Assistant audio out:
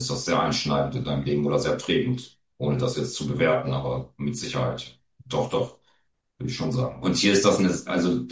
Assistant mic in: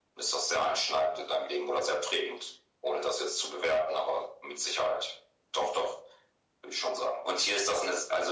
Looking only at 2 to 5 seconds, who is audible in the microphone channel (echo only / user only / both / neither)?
echo only